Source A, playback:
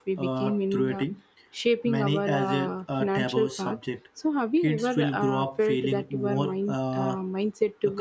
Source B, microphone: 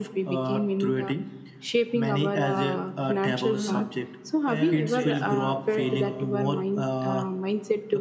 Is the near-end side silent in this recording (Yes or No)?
No